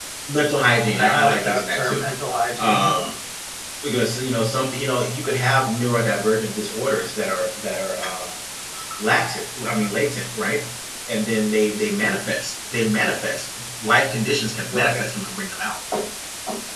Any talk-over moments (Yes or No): Yes